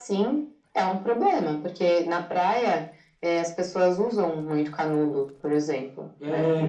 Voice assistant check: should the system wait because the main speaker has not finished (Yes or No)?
No